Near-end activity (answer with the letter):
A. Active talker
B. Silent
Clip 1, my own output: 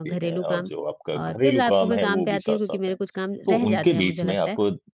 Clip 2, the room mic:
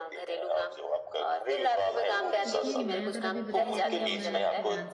A